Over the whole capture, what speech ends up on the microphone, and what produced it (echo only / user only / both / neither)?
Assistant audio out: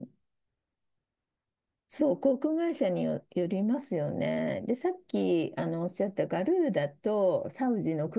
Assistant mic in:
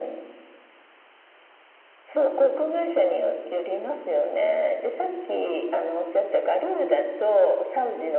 echo only